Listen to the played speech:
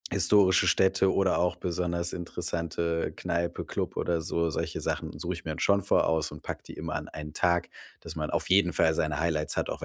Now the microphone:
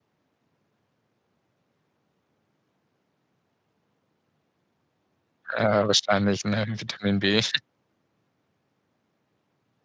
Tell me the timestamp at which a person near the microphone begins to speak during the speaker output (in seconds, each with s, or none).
5.6 s